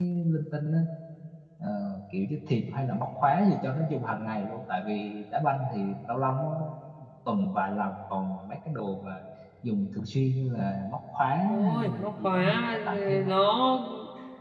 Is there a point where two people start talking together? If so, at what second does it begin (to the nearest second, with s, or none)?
11 s